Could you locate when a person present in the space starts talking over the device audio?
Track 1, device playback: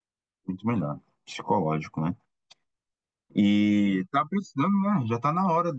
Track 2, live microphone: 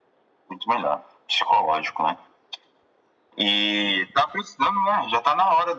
none

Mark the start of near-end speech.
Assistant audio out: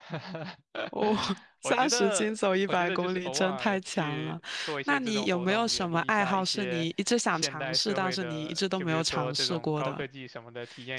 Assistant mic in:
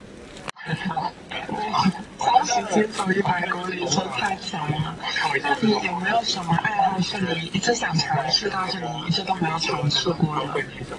none

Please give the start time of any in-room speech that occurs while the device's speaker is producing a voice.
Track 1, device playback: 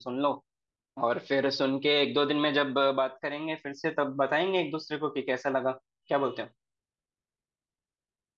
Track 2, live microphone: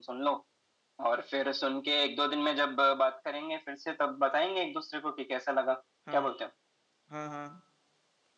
6.1 s

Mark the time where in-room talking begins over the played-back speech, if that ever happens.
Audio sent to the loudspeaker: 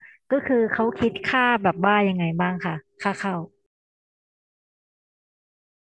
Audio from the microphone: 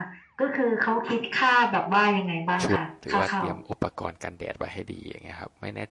2.6 s

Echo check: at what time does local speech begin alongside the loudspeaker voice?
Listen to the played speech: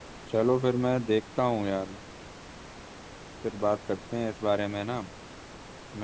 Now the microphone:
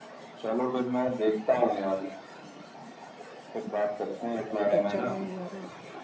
4.7 s

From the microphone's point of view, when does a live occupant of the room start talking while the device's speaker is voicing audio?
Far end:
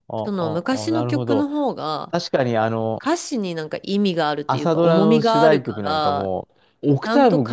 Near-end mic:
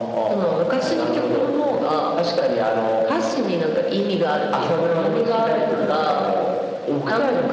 none

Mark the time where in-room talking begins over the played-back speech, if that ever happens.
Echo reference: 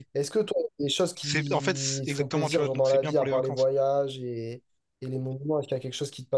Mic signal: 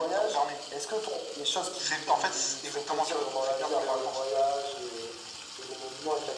none

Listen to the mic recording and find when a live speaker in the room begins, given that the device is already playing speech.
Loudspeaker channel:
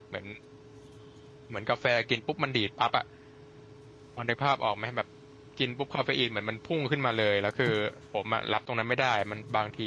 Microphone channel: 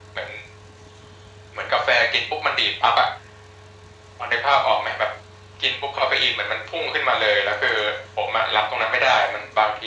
none

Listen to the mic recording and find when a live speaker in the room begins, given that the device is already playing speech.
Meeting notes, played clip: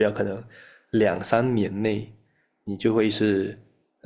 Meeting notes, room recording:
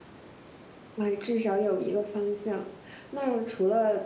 0.9 s

